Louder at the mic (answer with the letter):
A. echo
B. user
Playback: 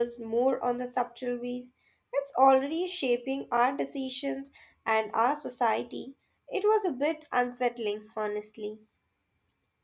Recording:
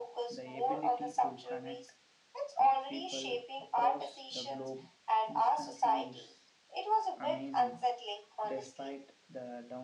A